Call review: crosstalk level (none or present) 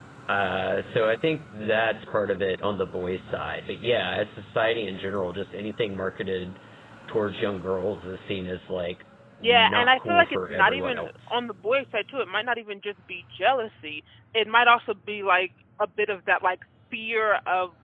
present